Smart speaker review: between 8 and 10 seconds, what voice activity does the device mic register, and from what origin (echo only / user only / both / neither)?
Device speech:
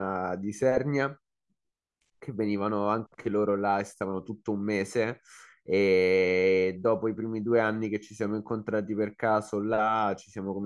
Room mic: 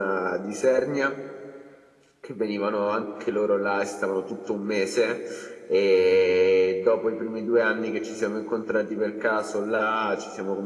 echo only